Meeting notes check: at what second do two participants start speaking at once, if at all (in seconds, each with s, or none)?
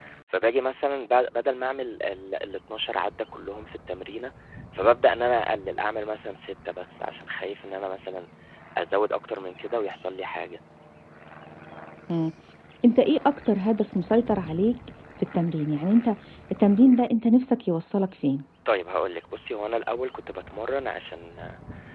none